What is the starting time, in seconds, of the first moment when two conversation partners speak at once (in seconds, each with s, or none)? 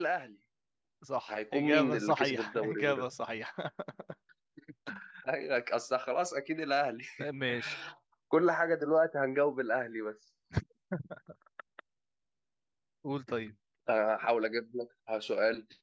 1.3 s